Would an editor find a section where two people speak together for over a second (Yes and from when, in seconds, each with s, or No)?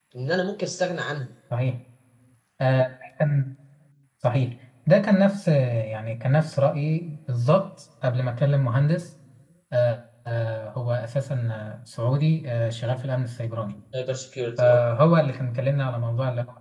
No